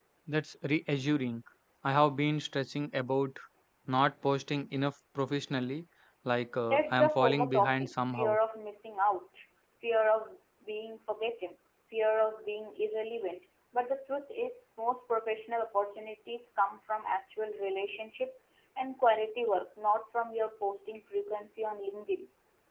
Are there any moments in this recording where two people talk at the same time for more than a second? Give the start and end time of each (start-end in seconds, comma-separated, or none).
6.7-8.4